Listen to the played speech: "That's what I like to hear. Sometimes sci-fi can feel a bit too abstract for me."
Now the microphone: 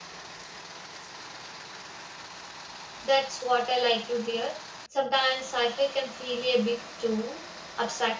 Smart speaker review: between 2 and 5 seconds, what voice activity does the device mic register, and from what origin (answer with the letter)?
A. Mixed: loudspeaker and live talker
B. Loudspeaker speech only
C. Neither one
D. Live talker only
B